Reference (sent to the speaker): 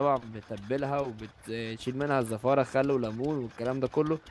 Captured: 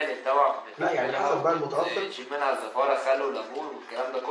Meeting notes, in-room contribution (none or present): present